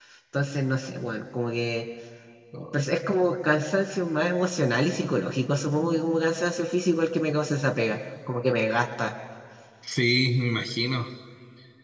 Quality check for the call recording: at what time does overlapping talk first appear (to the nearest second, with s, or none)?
none